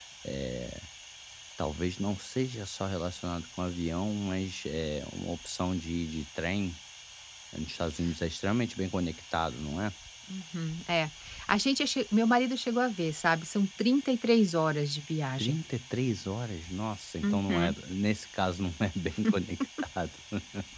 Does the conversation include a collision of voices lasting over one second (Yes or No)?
No